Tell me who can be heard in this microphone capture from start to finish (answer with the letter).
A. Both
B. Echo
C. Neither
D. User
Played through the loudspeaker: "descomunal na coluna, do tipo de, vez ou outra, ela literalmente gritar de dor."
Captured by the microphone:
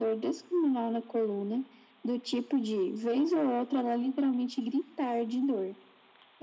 B